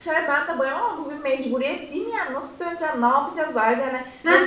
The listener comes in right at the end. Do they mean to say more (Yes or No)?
No